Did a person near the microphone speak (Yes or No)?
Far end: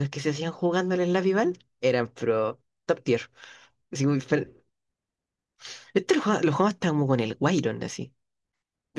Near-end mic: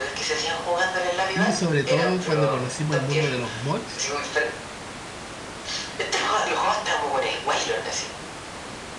Yes